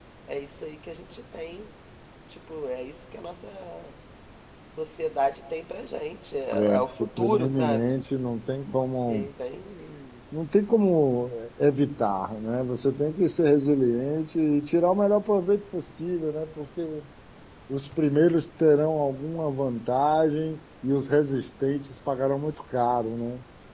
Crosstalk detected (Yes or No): Yes